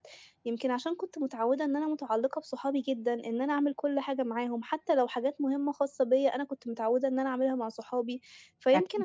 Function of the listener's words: listening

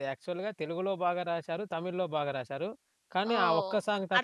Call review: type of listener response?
taking over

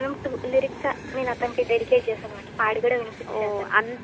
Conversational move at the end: taking over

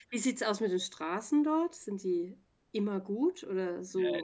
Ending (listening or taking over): taking over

